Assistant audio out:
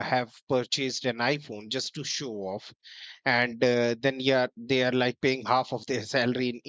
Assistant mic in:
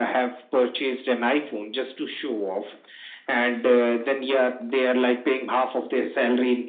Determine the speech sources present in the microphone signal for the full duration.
echo only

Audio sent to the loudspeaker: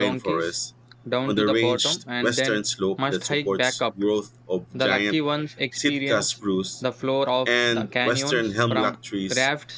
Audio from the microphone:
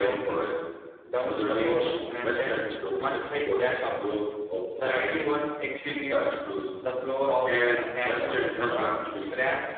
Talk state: echo only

